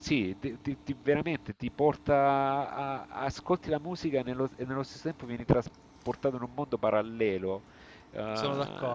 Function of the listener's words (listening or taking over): listening